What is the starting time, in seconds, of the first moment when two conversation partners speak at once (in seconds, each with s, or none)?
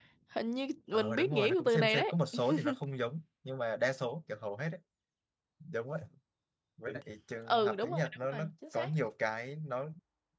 0.9 s